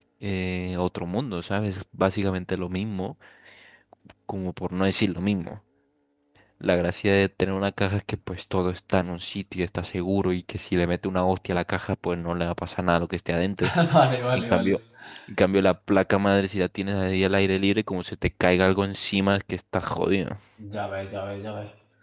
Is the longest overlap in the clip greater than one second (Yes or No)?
No